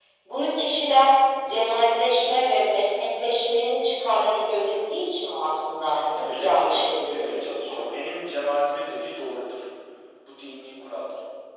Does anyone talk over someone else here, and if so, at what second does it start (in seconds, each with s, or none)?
6.3 s